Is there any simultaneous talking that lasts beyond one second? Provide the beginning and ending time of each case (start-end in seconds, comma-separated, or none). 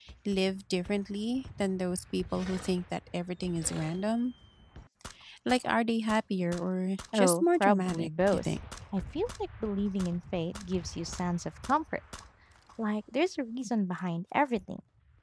7.1-8.5